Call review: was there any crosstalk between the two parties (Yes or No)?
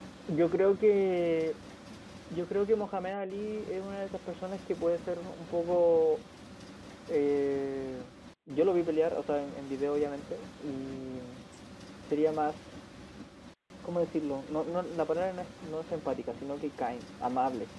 No